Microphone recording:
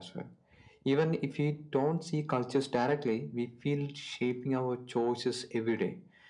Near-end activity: none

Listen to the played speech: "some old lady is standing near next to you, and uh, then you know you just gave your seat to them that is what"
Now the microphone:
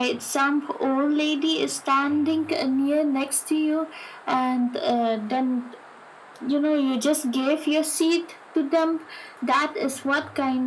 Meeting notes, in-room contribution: none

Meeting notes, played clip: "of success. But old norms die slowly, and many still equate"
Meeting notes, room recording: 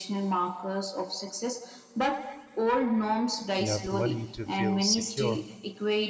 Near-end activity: present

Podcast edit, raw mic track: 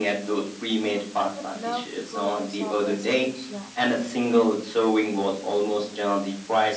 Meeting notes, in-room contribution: present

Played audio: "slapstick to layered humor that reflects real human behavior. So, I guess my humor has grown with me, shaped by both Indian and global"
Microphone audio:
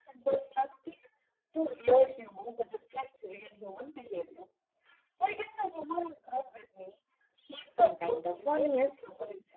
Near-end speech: present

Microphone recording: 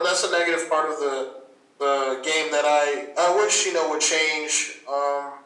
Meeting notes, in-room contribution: none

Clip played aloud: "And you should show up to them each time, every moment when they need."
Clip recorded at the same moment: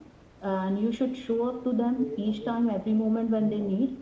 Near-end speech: present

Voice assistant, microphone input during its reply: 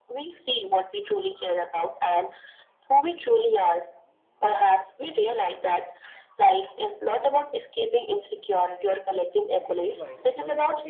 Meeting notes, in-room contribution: present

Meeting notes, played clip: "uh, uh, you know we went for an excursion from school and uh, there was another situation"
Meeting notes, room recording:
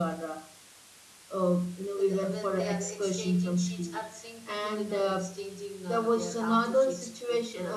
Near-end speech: present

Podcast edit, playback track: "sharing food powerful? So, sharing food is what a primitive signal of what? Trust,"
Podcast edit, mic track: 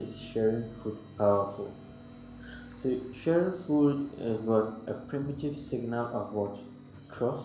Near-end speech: none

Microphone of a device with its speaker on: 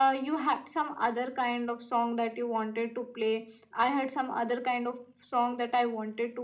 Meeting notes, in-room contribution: none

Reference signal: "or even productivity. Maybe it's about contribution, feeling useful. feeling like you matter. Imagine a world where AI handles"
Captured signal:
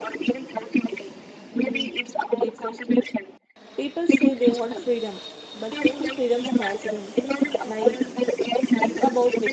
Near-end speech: present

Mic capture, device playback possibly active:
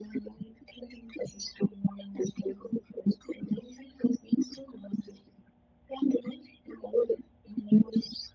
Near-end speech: none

